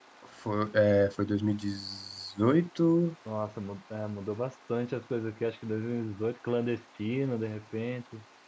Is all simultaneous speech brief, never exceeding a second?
Yes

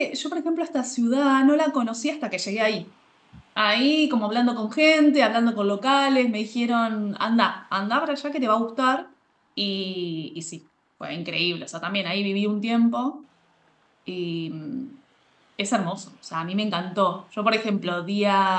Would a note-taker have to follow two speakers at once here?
No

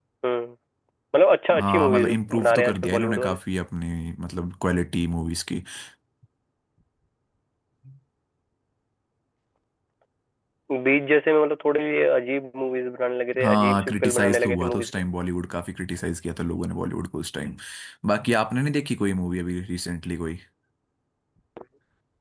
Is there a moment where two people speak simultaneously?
Yes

